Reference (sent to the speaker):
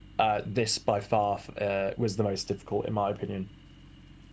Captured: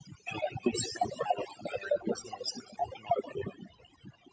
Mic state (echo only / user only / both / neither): echo only